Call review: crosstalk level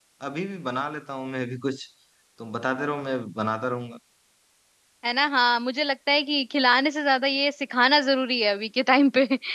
none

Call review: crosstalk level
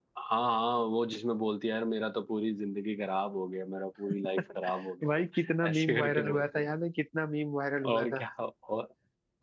present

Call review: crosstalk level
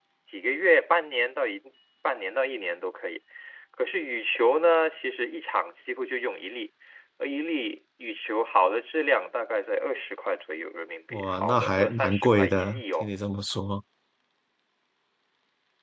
present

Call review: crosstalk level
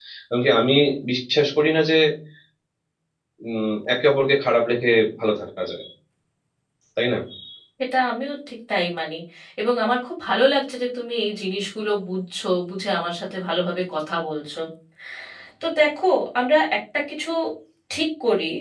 none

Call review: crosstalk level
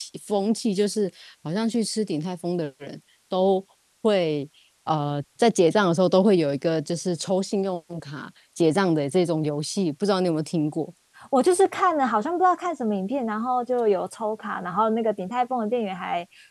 none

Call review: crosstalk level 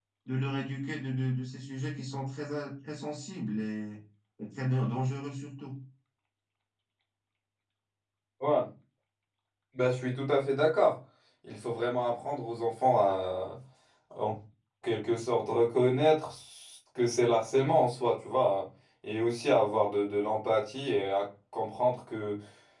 none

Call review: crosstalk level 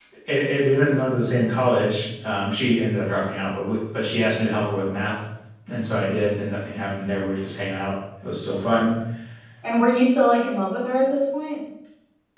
none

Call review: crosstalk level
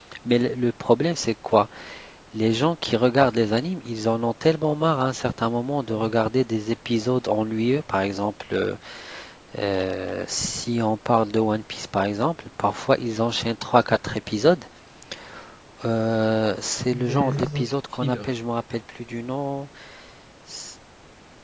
present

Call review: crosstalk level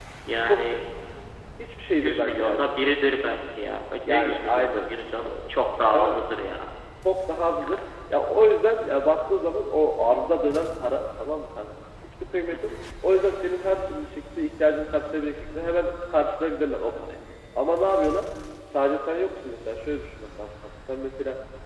present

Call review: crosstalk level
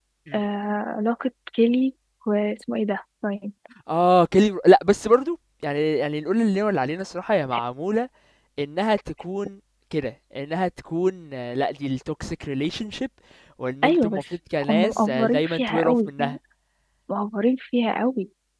present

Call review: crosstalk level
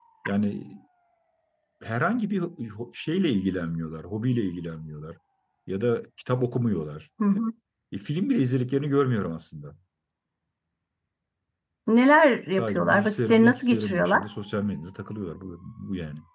present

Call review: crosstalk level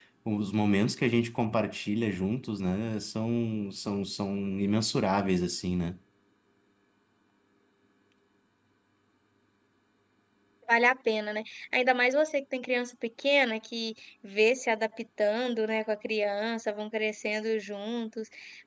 none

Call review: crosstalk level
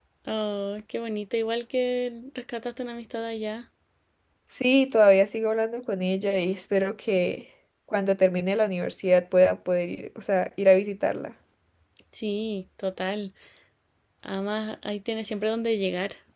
none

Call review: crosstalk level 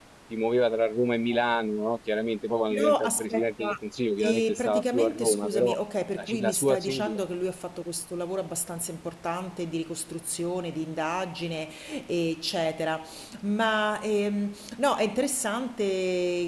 present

